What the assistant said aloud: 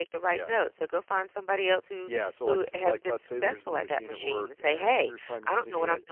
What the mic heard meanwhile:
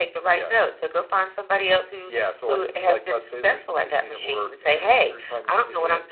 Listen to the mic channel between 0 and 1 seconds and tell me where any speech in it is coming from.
echo only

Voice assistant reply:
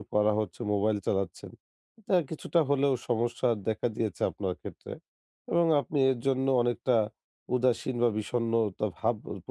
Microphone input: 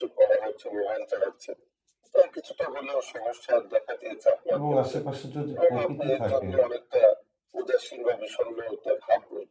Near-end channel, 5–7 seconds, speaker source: both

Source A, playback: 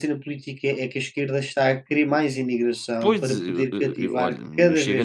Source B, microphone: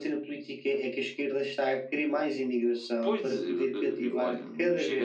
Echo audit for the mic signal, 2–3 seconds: echo only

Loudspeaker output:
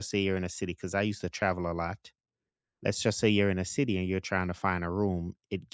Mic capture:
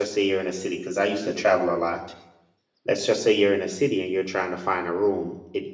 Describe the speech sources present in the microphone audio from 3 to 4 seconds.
echo only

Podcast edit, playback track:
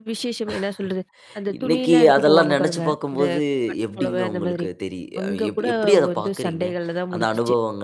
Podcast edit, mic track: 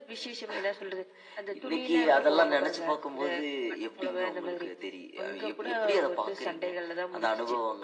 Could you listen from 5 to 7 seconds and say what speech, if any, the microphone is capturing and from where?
echo only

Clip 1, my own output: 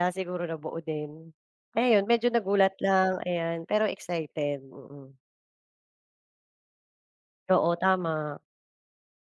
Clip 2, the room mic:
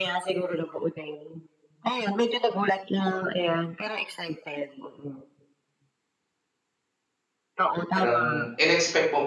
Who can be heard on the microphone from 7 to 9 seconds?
both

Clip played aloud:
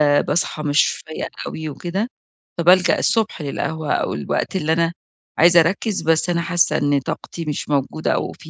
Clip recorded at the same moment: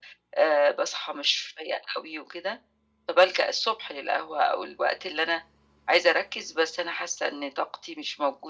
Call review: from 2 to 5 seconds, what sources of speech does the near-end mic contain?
echo only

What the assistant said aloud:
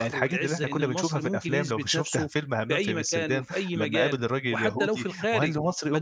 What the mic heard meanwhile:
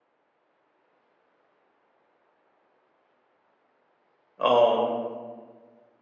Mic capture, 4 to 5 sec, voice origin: user only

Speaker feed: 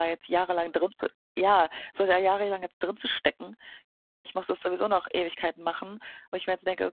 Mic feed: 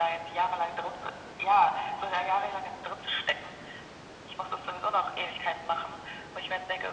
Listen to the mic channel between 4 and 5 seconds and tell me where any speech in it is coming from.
echo only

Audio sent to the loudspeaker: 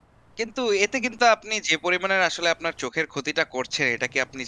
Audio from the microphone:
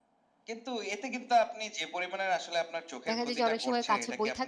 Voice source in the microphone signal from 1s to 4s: both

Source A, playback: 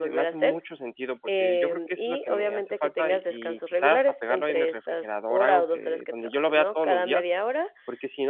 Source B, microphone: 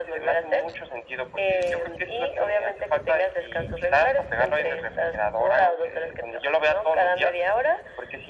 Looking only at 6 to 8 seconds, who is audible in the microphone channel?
echo only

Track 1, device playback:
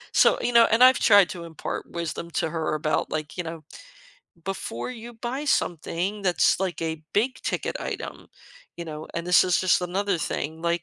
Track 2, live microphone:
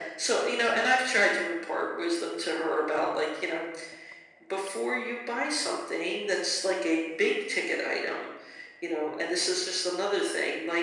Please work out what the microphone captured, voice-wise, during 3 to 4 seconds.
echo only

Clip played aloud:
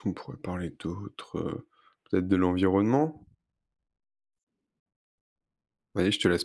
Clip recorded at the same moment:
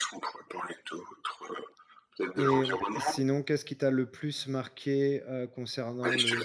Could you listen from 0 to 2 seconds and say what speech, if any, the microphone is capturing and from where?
echo only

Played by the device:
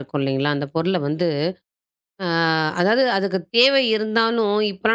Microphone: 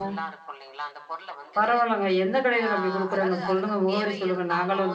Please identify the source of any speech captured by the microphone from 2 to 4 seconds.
both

